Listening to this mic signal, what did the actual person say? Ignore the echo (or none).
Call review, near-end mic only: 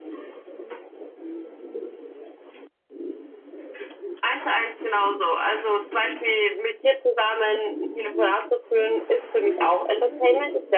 none